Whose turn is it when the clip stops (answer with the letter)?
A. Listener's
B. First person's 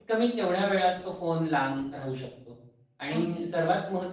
B